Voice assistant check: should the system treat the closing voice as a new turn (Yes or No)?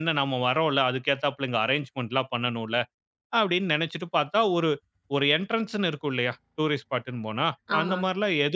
No